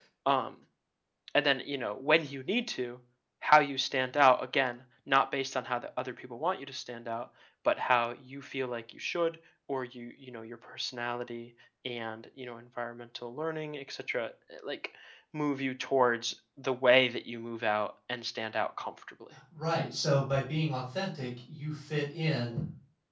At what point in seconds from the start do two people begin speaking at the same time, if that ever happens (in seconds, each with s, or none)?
none